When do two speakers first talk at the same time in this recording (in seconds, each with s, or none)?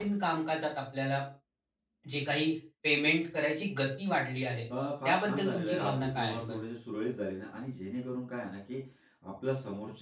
5.0 s